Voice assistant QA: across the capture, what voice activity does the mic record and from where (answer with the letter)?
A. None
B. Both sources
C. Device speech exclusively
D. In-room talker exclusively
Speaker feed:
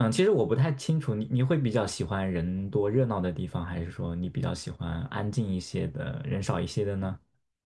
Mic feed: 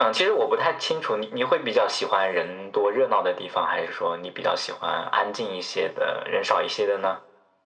C